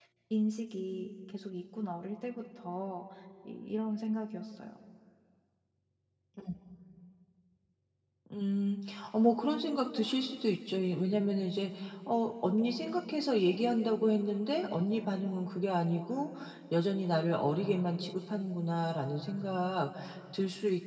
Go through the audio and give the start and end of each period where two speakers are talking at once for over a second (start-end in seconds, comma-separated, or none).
none